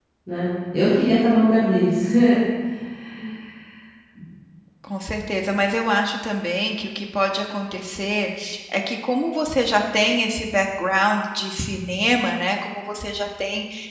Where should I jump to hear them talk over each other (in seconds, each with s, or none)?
none